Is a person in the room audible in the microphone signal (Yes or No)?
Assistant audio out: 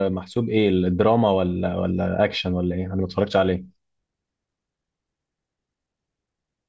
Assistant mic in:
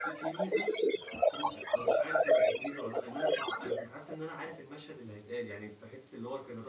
Yes